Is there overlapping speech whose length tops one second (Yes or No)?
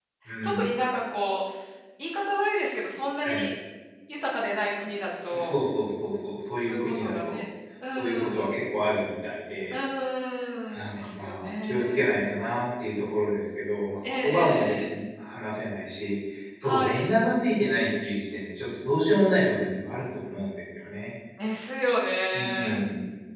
Yes